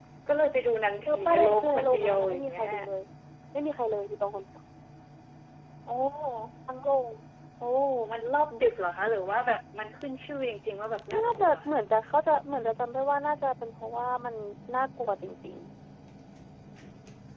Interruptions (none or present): present